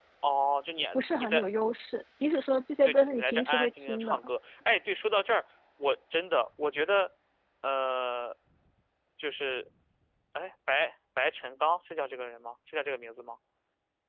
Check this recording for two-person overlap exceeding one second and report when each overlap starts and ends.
2.8-4.3

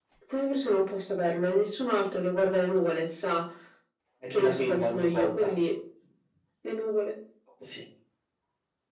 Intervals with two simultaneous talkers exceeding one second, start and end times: 4.3-5.5

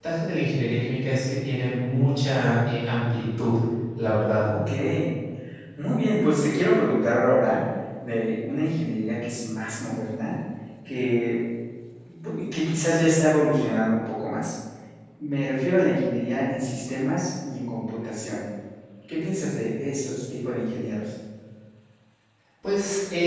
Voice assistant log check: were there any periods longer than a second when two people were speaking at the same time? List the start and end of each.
none

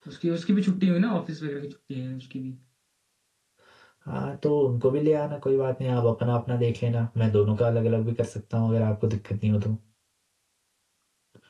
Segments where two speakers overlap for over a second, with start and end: none

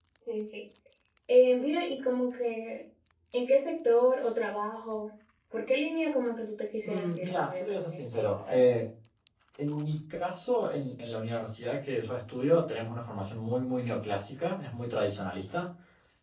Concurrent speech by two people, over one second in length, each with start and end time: 6.8-8.6

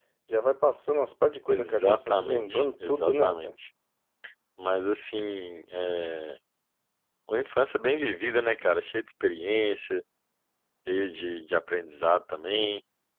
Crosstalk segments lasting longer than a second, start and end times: 1.5-3.5

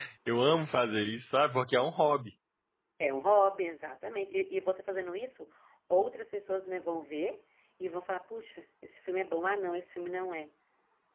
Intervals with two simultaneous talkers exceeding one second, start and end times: none

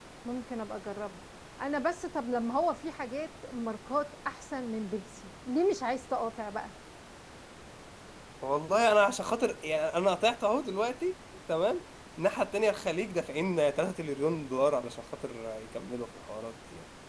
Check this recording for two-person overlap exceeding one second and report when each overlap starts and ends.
none

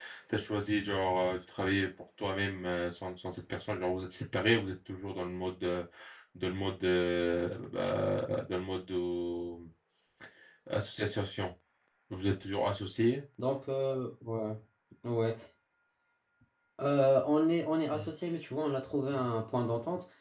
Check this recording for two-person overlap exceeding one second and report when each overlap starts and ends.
none

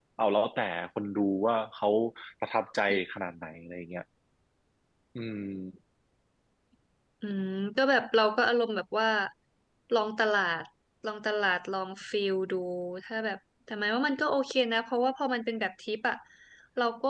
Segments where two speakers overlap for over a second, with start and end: none

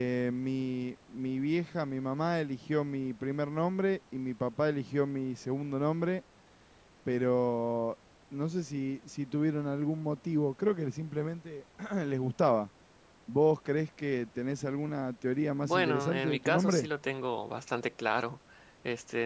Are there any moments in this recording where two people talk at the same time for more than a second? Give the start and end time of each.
15.7-16.9

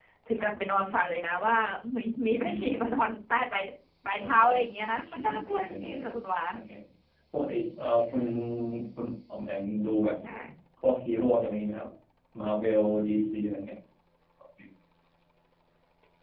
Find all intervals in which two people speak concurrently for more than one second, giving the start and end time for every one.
4.9-6.1

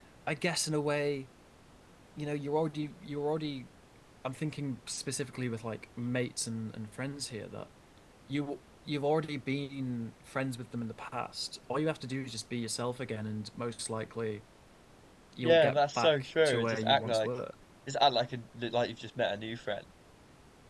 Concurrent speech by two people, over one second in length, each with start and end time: 15.4-17.3

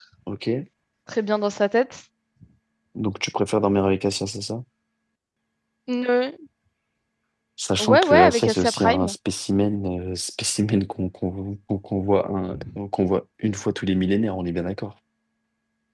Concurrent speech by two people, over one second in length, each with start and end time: 7.8-9.1

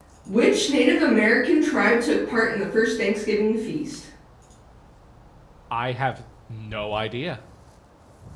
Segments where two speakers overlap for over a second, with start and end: none

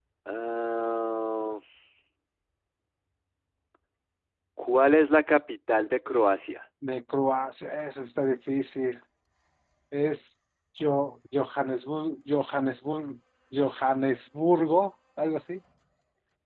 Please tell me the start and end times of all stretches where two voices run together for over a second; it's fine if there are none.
none

